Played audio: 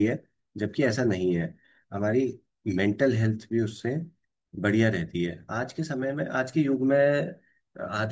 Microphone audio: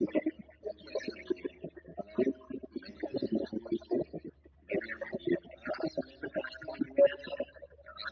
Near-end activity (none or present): none